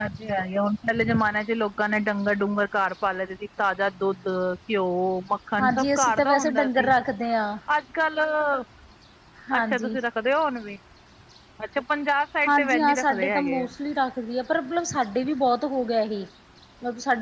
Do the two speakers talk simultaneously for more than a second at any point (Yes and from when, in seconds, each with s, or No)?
Yes, from 5.6 s